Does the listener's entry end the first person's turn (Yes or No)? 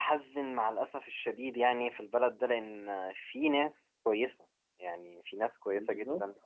No